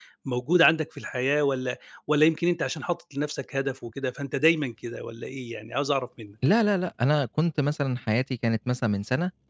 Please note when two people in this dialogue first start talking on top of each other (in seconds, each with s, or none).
none